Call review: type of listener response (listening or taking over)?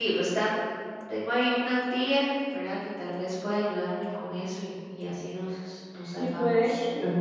taking over